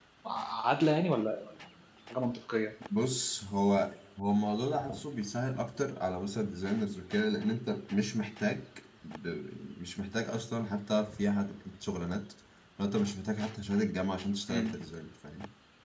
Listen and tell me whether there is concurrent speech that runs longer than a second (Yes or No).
No